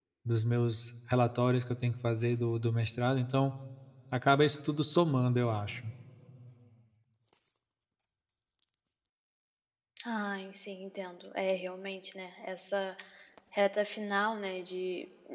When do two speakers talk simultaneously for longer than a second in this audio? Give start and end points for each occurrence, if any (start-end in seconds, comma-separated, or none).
none